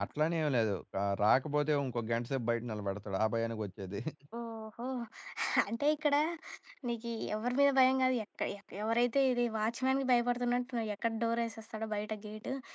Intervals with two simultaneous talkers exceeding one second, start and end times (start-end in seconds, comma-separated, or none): none